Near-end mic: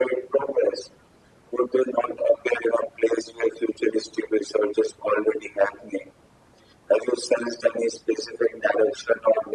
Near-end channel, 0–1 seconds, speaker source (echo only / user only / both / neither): echo only